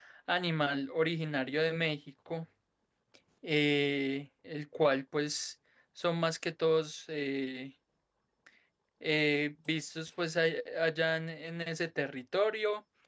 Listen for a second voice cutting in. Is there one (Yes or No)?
No